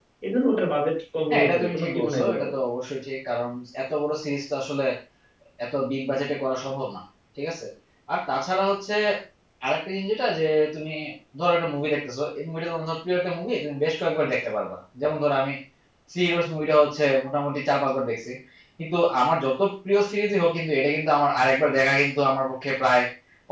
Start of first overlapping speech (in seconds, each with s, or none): 1.3 s